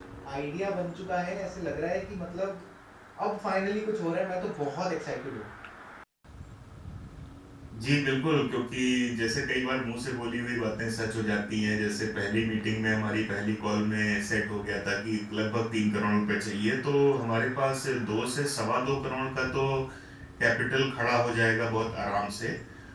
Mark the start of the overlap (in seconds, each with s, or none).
none